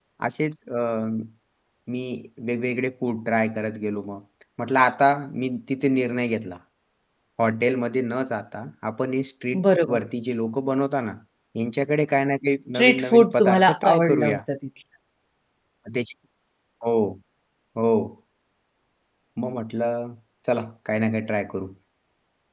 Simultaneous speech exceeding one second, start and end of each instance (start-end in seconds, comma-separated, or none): 12.7-14.4